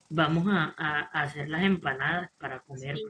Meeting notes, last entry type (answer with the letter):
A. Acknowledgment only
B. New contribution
B